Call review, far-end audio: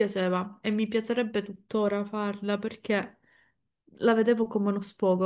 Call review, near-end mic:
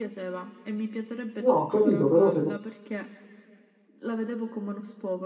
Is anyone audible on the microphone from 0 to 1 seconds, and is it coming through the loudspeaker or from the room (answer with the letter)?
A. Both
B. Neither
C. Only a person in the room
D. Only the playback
D